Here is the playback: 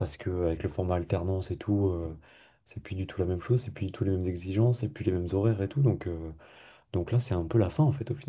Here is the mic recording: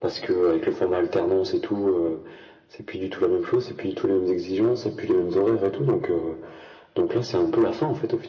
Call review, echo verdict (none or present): present